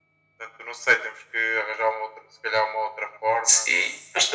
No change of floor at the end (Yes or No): No